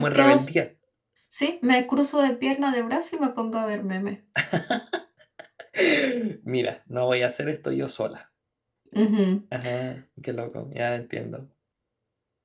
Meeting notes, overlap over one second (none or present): none